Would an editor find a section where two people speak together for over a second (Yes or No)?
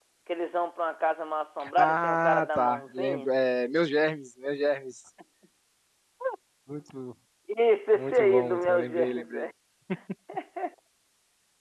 Yes